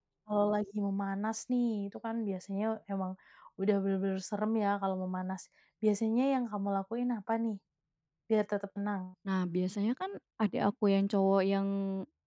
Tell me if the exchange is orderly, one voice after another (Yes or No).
Yes